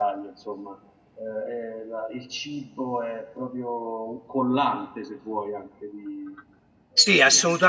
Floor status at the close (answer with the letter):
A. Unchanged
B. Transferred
B